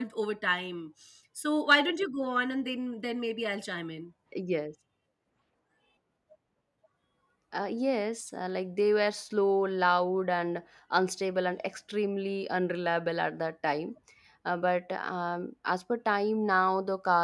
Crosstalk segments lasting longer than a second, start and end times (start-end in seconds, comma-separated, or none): none